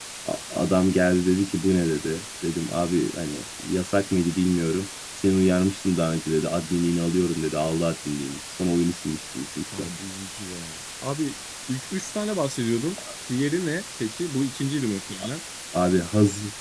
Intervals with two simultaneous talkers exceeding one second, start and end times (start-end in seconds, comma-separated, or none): none